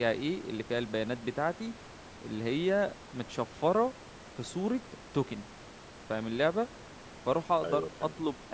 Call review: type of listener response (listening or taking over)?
listening